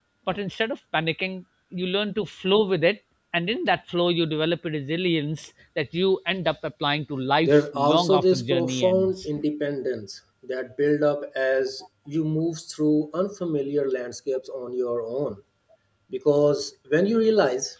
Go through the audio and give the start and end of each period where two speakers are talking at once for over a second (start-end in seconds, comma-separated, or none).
7.4-9.2